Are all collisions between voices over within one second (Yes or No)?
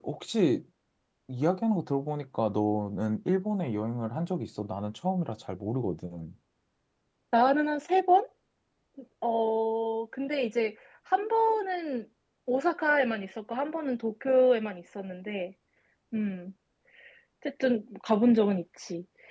Yes